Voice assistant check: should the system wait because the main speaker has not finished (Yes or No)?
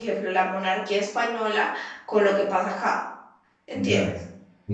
No